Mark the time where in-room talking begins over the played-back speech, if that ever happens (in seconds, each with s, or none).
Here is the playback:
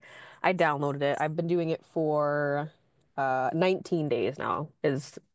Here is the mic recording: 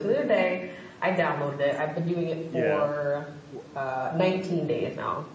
2.5 s